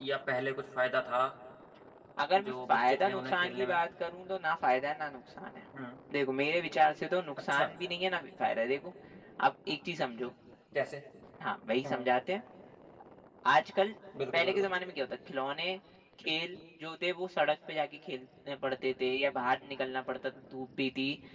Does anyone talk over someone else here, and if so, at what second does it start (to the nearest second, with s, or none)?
2 s